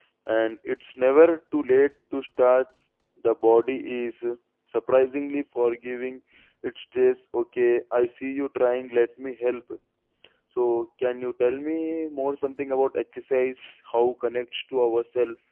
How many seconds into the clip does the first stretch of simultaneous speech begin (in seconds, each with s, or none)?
none